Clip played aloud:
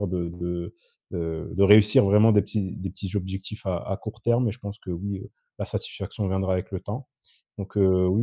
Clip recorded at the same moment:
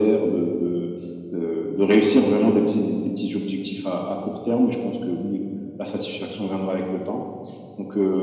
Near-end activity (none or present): none